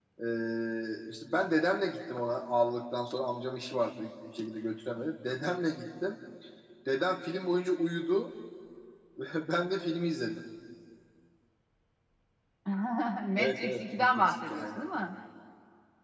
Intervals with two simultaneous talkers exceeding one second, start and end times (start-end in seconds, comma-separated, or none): 13.4-14.8